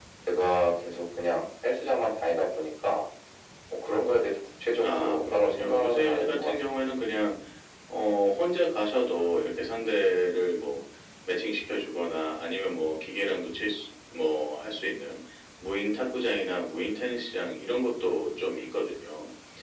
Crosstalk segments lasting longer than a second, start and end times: 4.8-6.6

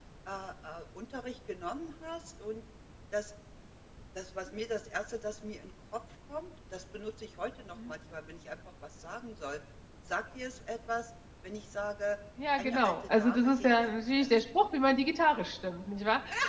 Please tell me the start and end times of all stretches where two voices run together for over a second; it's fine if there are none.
12.6-14.3

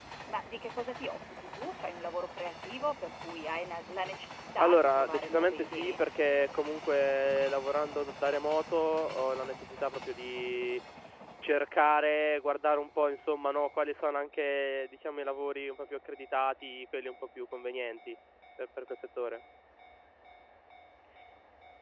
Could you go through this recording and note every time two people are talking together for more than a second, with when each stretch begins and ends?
4.6-6.0

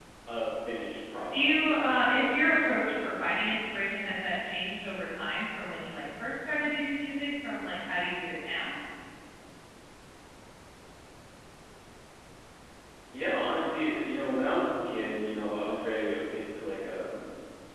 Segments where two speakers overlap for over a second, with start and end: 1.3-3.0

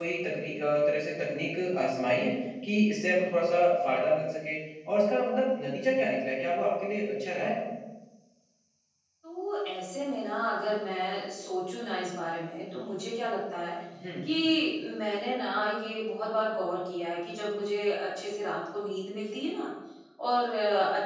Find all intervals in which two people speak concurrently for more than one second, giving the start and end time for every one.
none

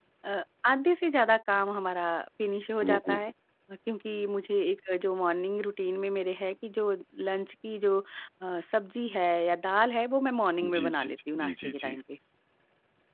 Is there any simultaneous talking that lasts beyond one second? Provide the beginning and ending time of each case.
10.8-12.0

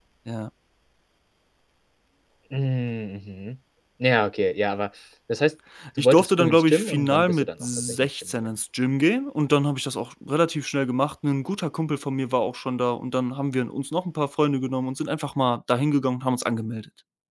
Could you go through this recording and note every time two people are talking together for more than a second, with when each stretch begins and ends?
6.0-8.5

